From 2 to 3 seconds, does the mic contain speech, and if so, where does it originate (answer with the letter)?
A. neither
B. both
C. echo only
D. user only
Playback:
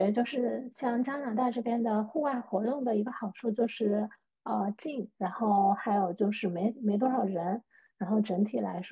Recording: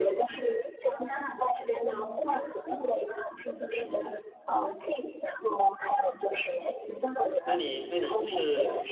C